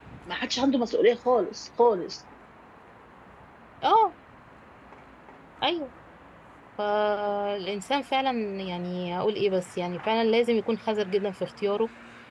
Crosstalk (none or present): none